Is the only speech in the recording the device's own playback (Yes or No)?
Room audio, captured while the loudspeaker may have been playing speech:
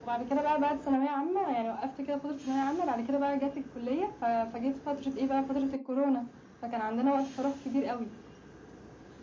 Yes